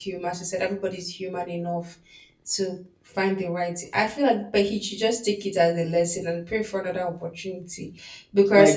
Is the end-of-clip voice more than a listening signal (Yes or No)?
Yes